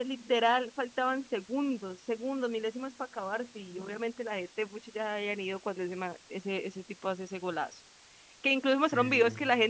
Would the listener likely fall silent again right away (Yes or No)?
Yes